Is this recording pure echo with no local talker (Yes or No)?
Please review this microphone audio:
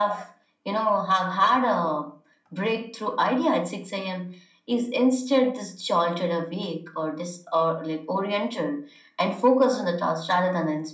Yes